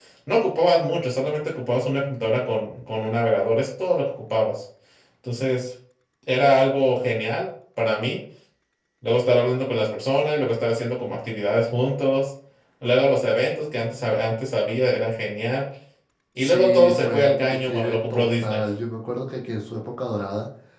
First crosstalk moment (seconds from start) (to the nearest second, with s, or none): 16 s